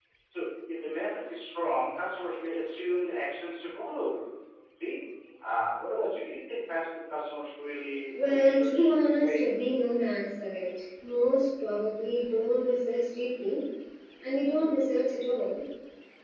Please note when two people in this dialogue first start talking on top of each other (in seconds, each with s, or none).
8.1 s